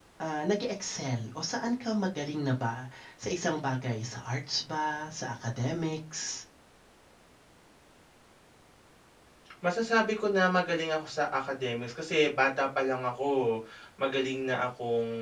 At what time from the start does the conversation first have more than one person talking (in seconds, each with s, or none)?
none